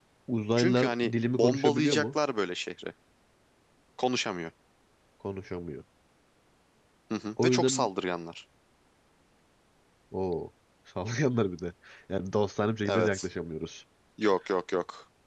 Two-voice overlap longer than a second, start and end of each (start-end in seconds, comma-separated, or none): 0.6-2.1